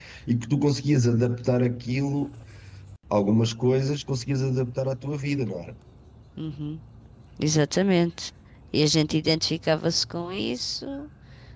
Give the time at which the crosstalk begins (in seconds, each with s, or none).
none